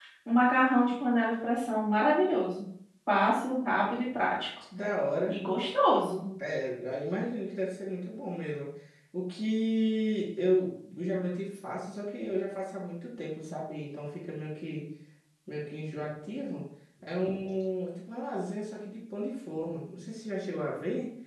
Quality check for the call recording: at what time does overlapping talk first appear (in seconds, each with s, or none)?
none